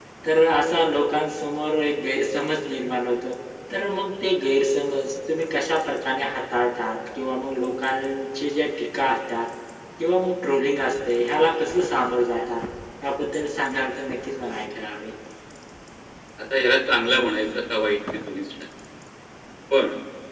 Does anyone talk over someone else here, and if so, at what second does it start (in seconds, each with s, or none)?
none